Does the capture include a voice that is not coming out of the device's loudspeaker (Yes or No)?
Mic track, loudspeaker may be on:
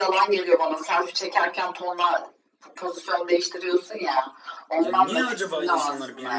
Yes